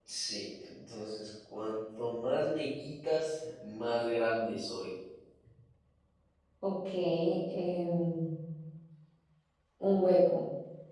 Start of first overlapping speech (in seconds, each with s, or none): none